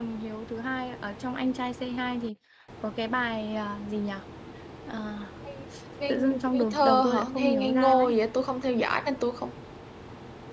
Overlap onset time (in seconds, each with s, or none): 6.1 s